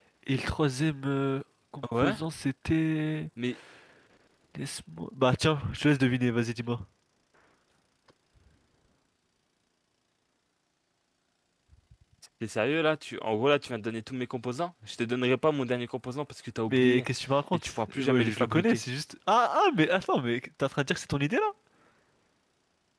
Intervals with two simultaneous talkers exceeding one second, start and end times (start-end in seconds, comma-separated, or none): 17.5-18.8